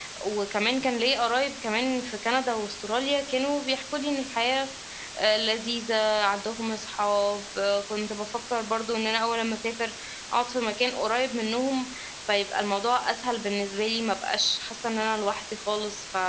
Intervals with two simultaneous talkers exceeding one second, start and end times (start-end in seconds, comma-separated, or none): none